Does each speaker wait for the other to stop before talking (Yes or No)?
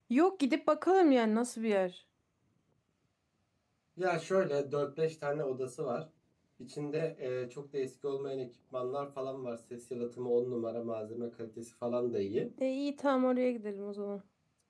Yes